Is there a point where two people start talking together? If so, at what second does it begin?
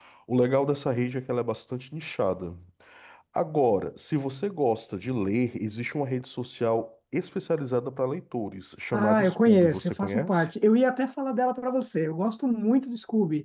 8.9 s

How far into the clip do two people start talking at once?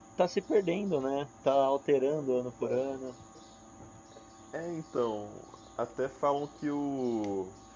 none

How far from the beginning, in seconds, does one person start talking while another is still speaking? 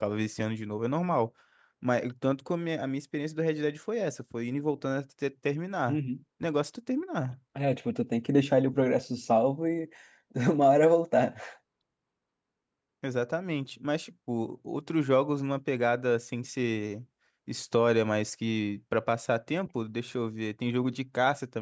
none

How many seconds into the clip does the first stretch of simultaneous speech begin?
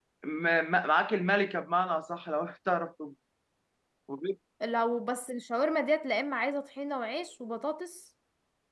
none

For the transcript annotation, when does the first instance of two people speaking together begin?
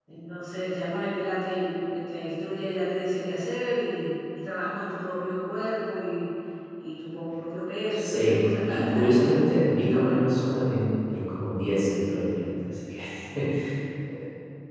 8.0 s

